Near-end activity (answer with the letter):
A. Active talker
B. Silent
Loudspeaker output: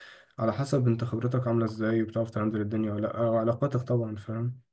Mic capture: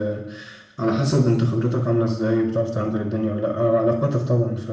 B